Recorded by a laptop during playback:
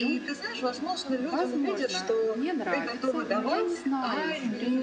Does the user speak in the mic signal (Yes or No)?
Yes